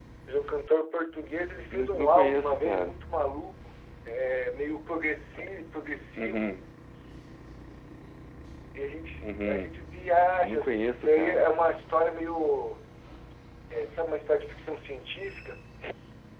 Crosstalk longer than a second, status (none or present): present